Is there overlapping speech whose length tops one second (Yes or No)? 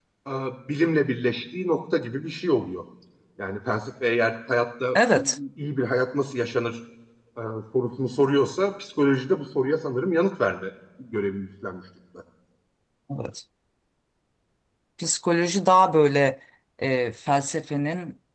No